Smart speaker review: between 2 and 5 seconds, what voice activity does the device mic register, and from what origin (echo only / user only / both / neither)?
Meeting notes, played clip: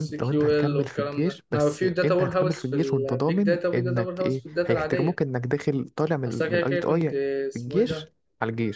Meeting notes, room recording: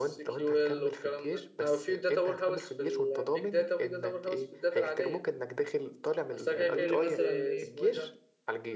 echo only